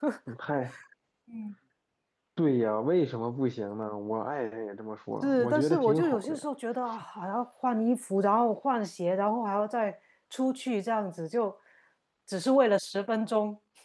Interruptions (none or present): present